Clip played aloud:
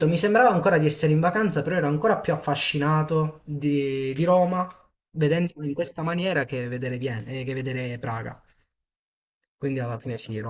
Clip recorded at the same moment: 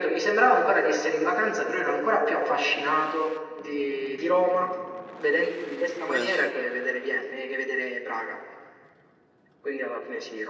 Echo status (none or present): present